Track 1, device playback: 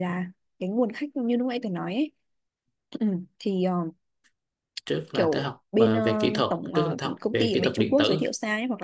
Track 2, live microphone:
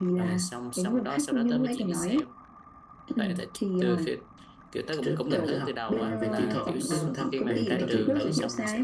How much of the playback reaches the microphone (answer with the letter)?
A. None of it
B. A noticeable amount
B